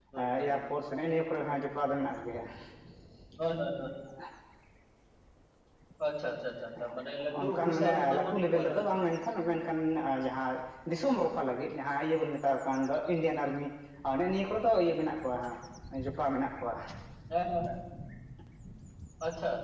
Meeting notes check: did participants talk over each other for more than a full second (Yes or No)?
Yes